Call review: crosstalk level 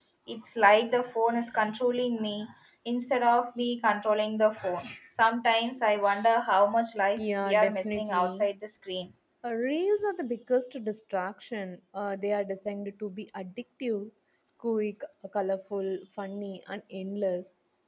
present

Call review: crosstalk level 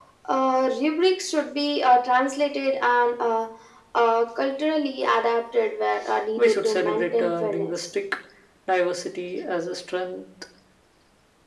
present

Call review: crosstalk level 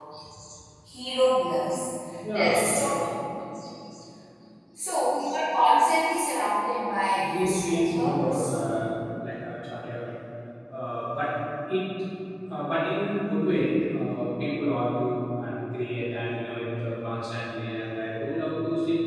present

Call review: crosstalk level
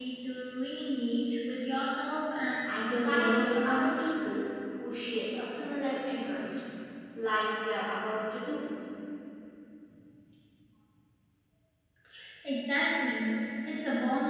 present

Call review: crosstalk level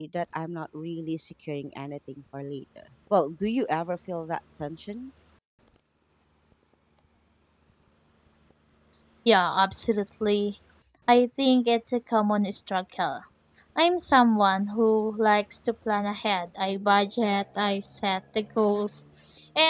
none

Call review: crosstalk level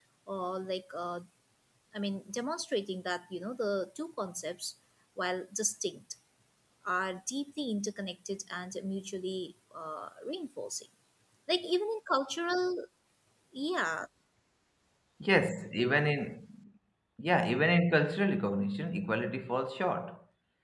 none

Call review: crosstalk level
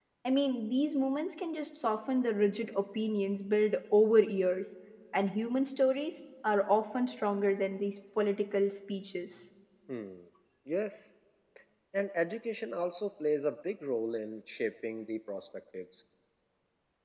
none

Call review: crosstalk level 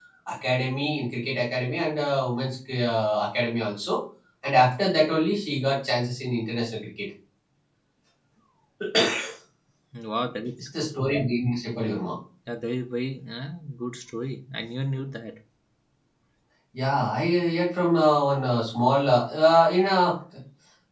none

